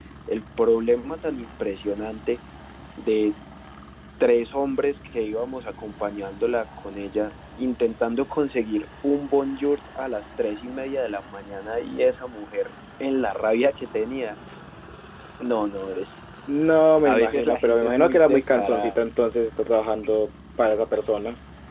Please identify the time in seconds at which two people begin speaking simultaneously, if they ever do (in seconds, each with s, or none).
17.0 s